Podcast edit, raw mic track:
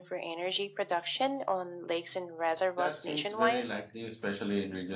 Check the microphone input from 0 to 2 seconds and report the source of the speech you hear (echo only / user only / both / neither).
echo only